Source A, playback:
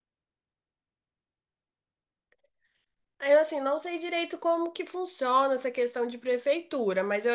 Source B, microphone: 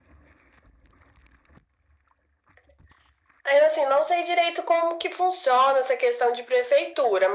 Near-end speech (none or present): none